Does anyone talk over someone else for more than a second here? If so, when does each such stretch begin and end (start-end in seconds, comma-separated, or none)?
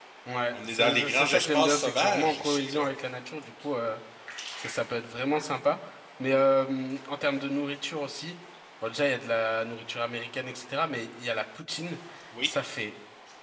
0.5-2.9